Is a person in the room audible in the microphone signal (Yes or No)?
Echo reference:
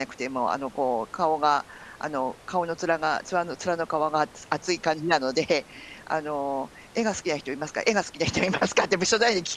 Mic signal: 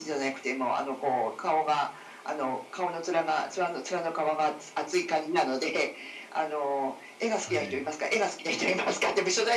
Yes